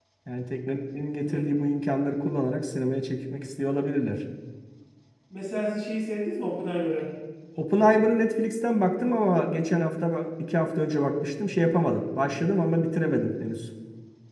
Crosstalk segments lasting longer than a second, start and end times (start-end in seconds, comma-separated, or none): none